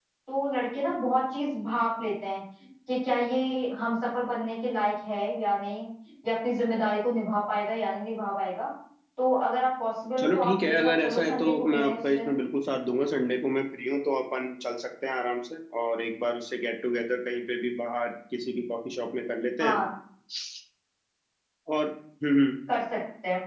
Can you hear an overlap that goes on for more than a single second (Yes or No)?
Yes